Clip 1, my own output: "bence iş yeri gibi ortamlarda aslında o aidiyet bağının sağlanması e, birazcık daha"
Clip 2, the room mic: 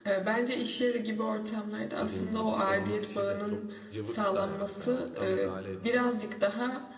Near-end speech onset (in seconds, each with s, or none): 2.0 s